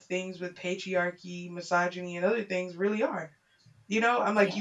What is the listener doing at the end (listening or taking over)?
listening